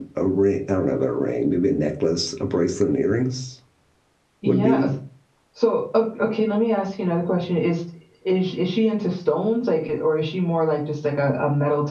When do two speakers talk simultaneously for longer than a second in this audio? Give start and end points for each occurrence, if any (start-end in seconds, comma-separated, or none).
none